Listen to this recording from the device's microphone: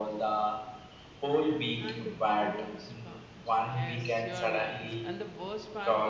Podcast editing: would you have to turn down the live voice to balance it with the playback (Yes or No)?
No